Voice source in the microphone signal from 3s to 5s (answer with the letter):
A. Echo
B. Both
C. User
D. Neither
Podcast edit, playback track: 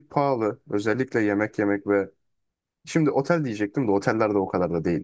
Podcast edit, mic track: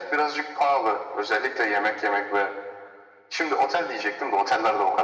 A